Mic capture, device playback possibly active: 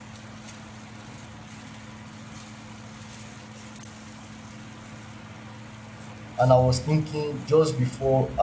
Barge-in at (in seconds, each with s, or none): 6.4 s